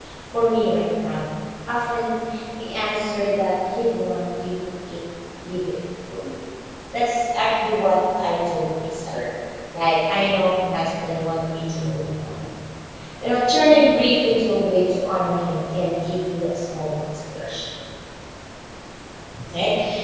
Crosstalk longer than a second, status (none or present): none